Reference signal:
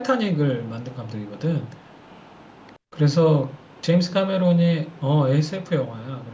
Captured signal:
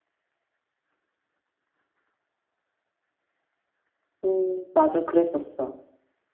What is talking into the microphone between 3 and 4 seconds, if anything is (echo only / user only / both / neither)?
neither